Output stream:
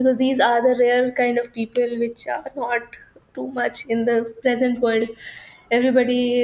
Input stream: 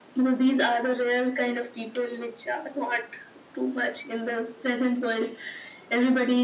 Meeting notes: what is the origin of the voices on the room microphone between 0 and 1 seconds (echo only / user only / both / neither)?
echo only